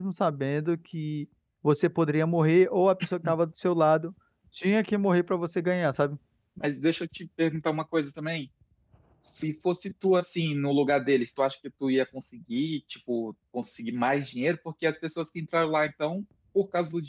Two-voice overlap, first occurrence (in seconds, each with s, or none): none